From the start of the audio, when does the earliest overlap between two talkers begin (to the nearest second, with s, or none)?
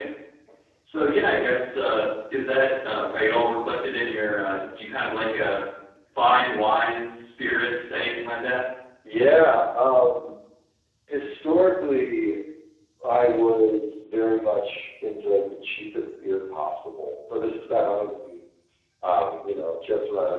none